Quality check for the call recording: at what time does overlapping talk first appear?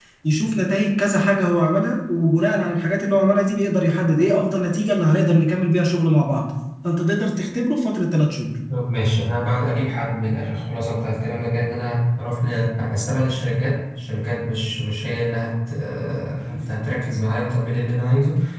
none

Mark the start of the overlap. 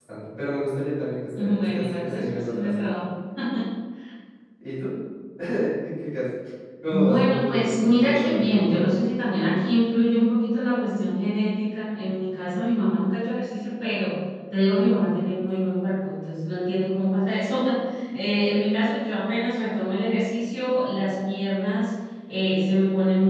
1.4 s

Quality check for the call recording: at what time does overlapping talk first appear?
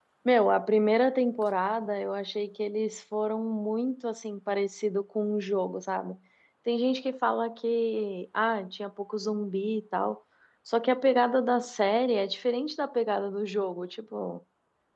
none

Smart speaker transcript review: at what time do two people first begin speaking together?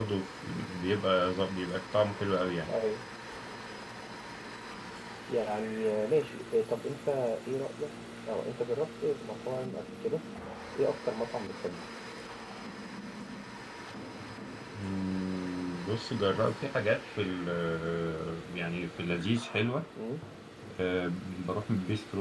none

